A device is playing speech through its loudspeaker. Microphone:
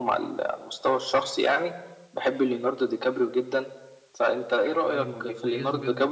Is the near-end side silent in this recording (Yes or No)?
No